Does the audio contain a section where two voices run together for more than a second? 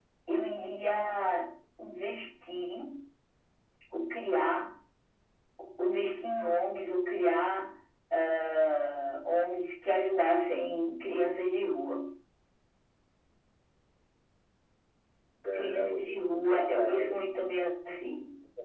Yes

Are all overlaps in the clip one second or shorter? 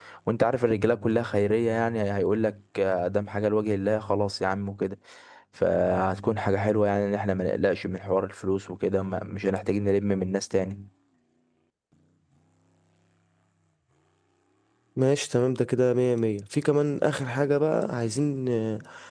Yes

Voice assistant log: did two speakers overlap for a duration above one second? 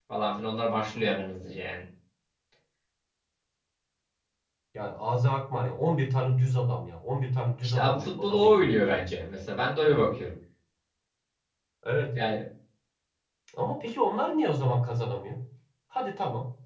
Yes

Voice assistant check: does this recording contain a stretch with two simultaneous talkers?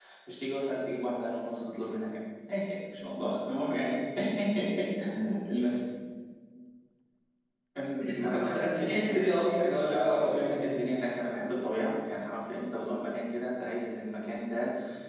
Yes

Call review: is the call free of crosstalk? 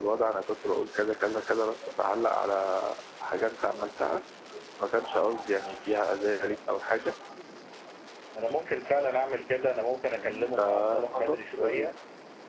No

